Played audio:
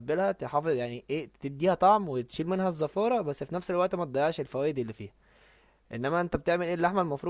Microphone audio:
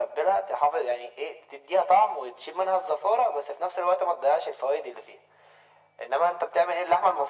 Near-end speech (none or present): none